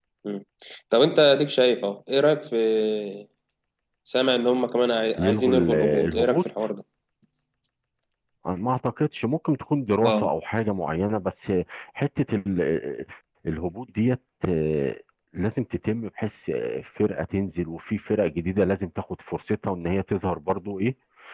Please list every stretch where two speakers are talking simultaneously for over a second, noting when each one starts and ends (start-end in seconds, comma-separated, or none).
5.2-6.4